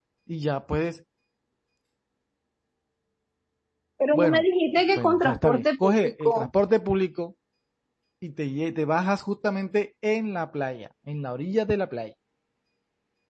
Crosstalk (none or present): present